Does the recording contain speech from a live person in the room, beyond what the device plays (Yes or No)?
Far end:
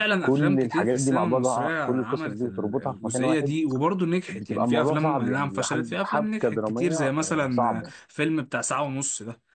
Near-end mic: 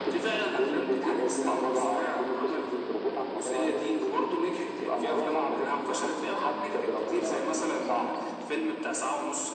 No